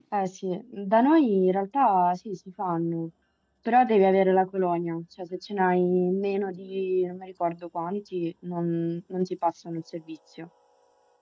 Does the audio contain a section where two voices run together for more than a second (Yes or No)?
No